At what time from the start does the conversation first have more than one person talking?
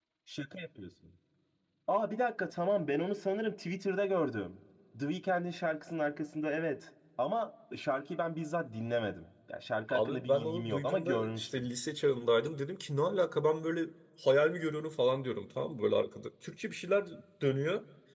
9.9 s

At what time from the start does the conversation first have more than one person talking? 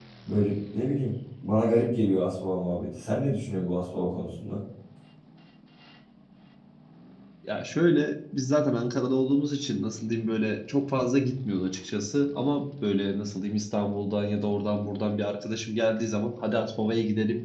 none

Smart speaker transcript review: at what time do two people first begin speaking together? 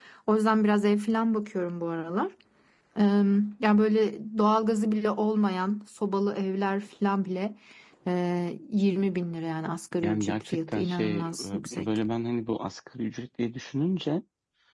10.0 s

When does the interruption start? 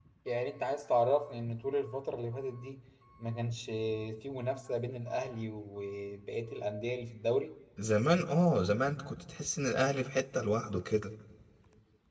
none

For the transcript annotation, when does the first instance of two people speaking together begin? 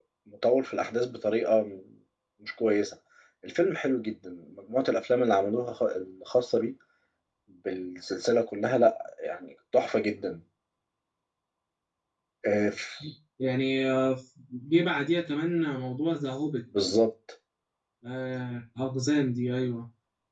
none

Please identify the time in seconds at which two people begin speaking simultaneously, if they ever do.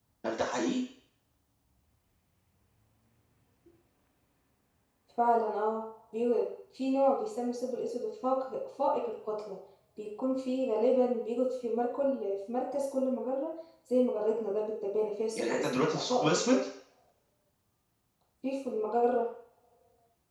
15.4 s

